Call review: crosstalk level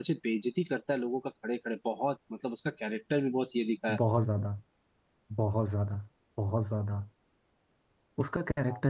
none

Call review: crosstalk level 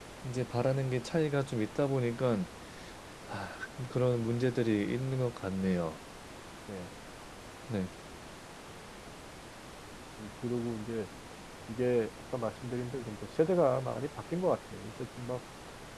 none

